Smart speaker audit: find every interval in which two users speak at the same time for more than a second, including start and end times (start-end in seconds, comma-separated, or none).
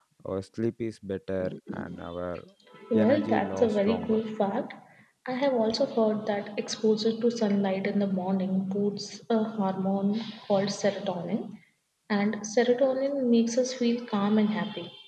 3.0-4.2